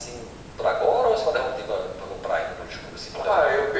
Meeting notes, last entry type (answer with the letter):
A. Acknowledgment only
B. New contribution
B